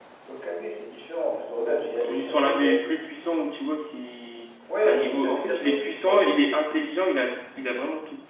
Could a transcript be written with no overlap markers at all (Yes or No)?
No